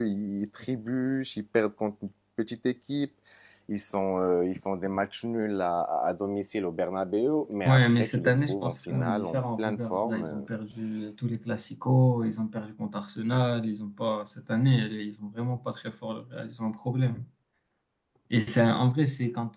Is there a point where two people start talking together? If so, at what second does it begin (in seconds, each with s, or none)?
7.7 s